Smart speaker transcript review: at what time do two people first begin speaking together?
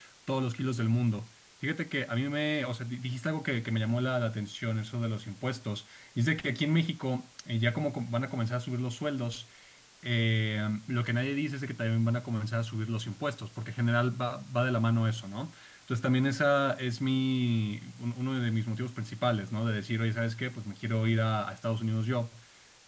none

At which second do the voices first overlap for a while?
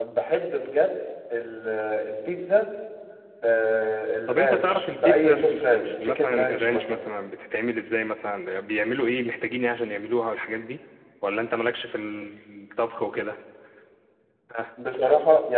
4.3 s

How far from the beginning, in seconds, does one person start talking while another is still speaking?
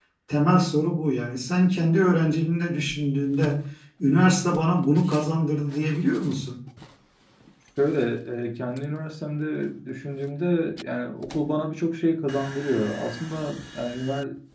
none

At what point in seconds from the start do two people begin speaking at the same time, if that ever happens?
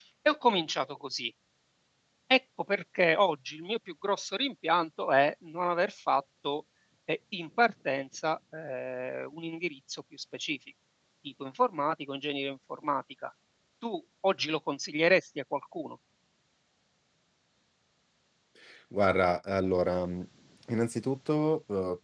none

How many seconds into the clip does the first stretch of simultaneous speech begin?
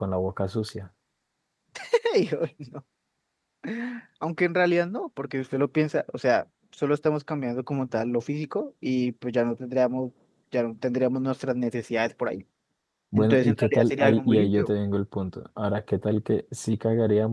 13.2 s

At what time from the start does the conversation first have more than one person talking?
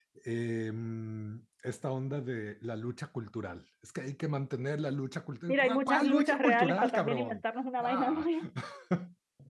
5.5 s

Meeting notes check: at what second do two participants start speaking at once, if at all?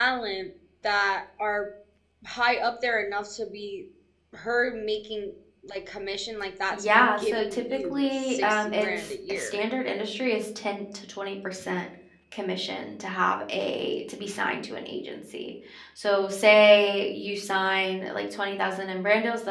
6.7 s

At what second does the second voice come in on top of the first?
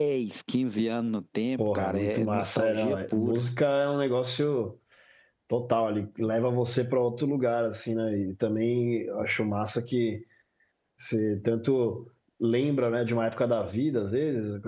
1.6 s

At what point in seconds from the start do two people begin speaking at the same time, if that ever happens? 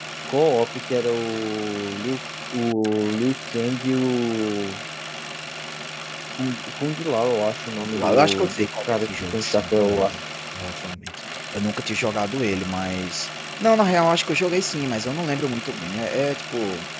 7.7 s

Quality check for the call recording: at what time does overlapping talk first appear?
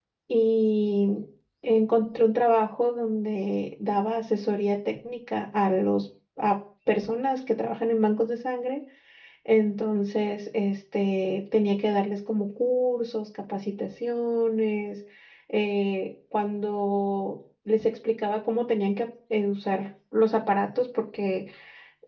none

